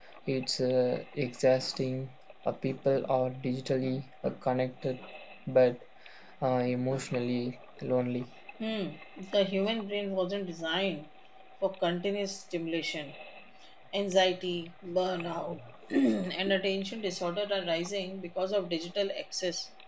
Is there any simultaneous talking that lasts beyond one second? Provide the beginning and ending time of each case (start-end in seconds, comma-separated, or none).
none